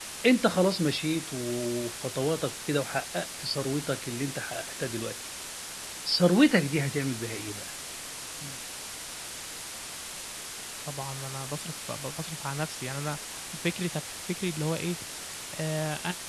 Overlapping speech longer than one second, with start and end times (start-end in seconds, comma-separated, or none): none